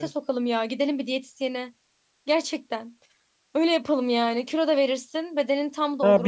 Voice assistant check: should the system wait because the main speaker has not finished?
No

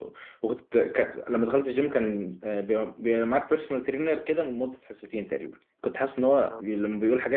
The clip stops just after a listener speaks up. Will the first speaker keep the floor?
Yes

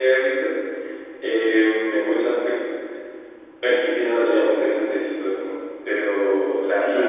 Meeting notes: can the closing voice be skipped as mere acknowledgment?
No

